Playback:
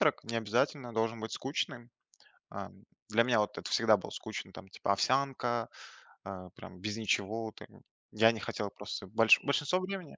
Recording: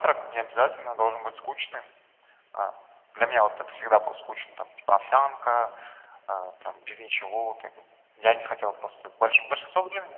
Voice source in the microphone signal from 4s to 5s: echo only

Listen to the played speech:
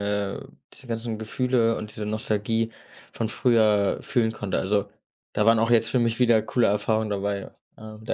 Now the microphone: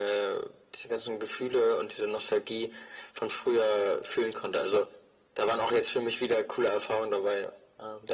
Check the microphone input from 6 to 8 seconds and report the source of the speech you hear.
echo only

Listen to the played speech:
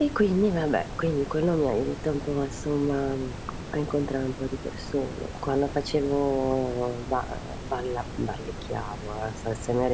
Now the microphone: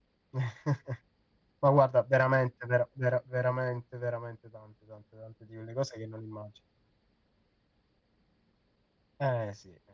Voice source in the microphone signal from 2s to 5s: user only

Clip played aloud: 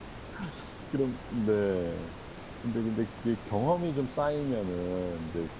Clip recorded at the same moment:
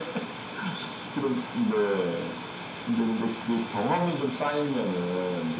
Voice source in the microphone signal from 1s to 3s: echo only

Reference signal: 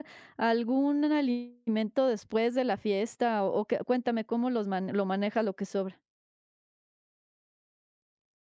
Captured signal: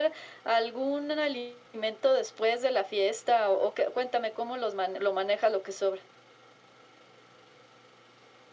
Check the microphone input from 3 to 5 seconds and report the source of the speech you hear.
echo only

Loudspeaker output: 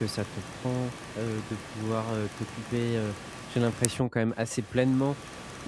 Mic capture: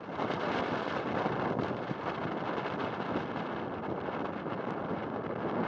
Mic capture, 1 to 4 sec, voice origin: neither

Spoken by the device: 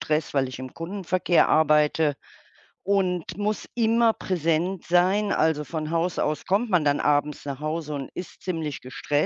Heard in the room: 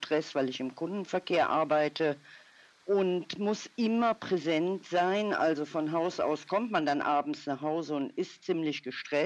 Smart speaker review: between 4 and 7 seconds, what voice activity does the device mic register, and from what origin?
echo only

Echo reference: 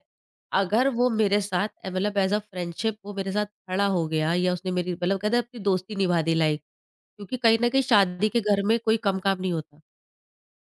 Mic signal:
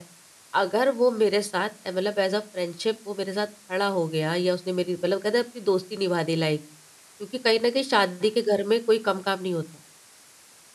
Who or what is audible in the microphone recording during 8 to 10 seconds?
echo only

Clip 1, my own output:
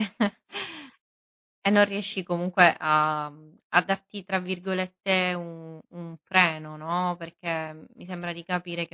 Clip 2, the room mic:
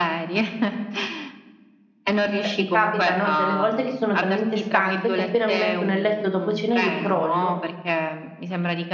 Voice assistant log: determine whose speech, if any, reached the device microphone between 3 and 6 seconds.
both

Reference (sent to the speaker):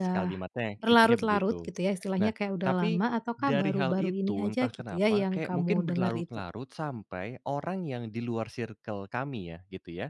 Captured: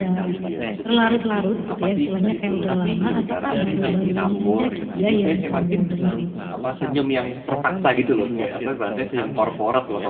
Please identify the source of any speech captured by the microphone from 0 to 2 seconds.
both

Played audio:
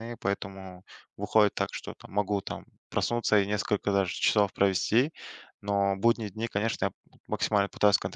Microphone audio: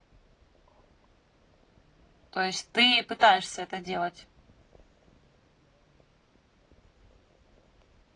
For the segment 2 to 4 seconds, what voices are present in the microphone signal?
user only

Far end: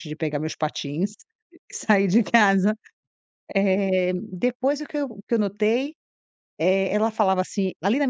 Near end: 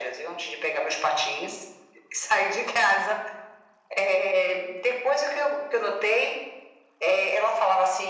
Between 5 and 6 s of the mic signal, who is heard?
echo only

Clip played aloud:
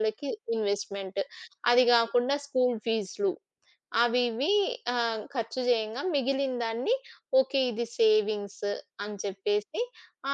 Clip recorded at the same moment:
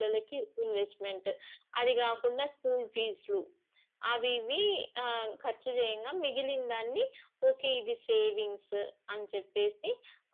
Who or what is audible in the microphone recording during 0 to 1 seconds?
echo only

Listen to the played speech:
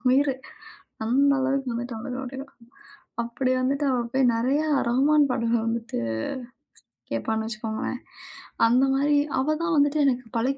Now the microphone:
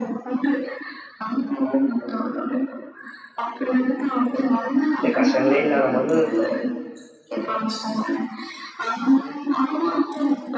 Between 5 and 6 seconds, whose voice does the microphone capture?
both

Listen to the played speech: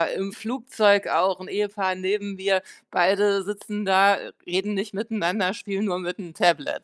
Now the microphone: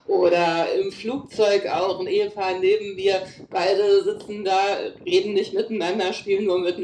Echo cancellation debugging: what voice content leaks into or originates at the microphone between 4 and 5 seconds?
echo only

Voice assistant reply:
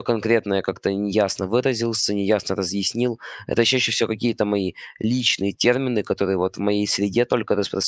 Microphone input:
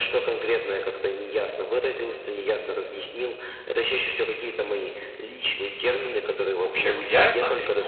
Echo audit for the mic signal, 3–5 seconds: echo only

